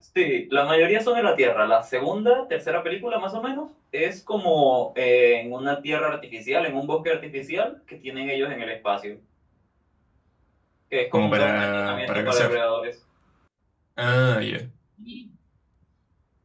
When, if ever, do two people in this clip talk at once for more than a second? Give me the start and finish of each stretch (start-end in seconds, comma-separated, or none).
11.1-12.5